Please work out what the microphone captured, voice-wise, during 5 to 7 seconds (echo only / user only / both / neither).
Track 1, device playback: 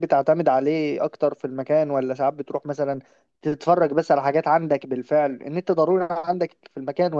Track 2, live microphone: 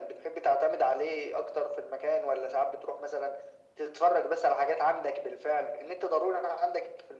echo only